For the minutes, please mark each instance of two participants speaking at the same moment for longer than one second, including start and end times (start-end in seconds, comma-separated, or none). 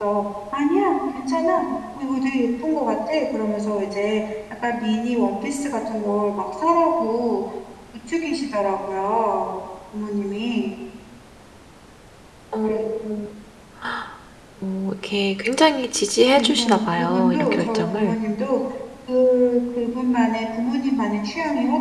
16.4-18.2